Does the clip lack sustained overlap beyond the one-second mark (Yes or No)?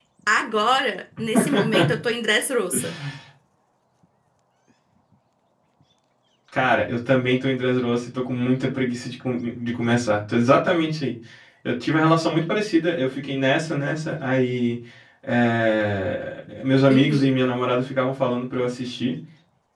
Yes